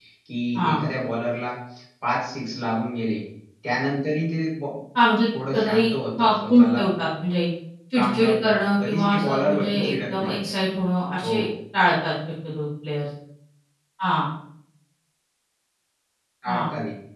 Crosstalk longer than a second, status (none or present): present